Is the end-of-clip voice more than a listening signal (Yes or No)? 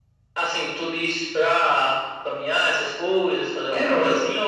Yes